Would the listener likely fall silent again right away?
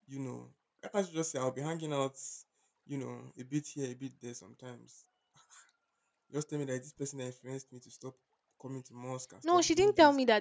No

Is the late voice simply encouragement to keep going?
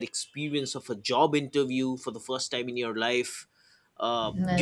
Yes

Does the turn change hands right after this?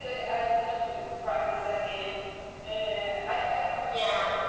No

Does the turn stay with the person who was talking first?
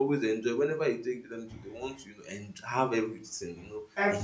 No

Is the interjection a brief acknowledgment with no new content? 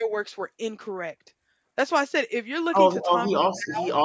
No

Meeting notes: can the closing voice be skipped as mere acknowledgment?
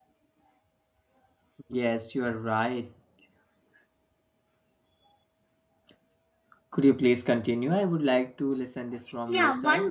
No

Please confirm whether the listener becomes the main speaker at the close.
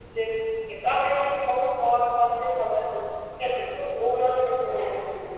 Yes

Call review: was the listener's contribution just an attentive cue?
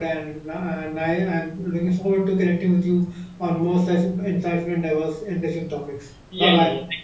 No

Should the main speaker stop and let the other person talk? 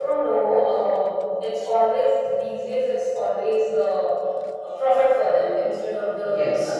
No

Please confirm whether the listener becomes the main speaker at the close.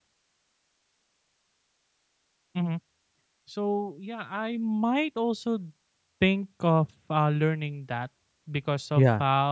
No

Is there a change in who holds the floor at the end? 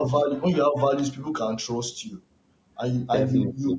No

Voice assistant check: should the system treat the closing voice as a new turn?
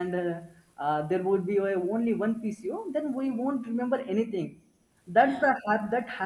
No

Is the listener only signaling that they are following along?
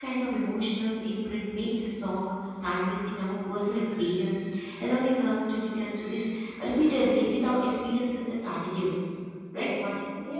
No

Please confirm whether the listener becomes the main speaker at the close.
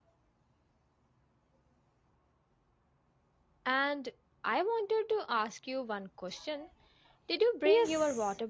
Yes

